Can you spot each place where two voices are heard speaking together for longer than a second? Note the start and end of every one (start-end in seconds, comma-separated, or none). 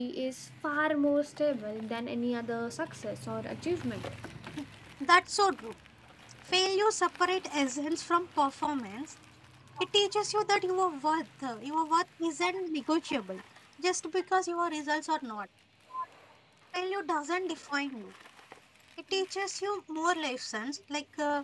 none